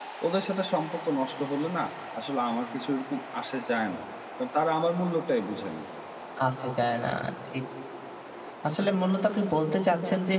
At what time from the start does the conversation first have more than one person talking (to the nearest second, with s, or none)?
none